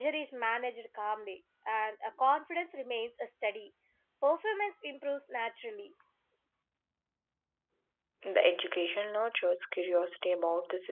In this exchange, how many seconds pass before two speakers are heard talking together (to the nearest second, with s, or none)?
none